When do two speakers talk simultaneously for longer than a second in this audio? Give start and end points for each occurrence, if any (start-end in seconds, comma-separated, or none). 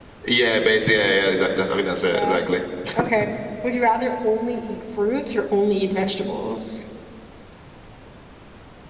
none